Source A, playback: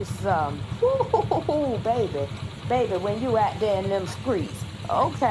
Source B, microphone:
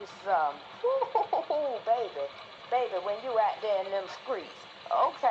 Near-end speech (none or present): none